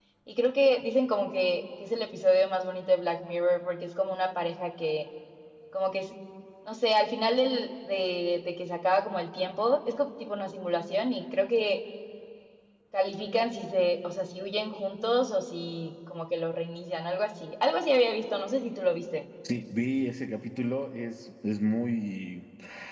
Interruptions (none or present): none